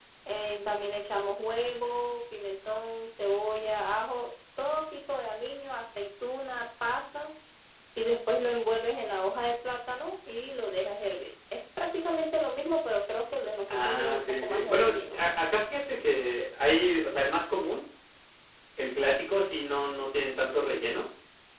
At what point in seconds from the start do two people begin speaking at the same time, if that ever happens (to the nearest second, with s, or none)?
14 s